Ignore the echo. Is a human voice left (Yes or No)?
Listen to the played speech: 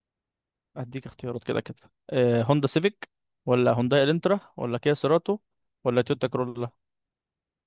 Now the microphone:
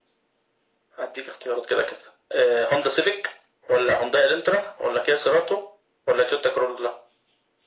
No